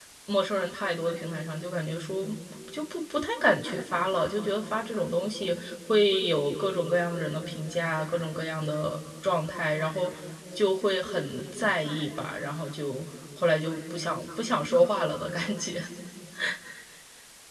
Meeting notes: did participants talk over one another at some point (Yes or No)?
No